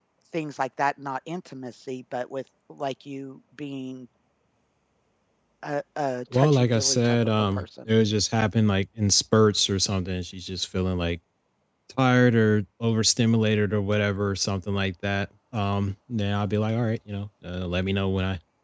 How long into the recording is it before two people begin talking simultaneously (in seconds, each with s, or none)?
6.3 s